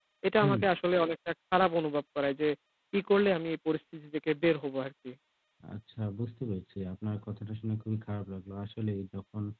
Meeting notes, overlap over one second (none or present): none